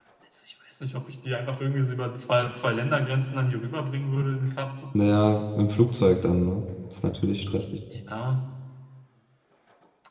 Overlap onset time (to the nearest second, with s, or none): none